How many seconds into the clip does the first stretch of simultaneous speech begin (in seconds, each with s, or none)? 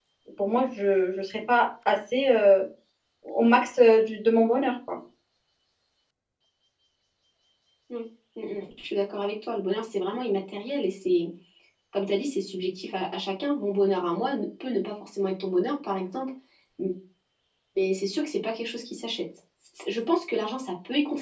none